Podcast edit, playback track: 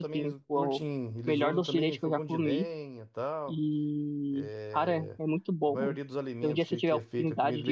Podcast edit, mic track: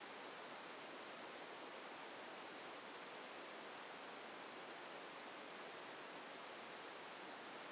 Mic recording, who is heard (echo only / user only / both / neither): neither